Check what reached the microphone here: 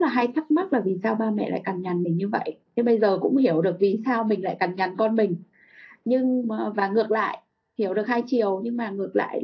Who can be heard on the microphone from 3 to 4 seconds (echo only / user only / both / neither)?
user only